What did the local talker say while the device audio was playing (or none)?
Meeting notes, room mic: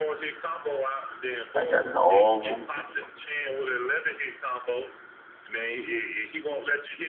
I got it all on videotape.